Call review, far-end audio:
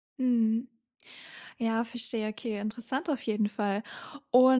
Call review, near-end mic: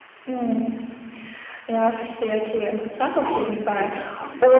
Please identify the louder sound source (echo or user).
echo